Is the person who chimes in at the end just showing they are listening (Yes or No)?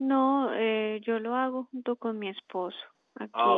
No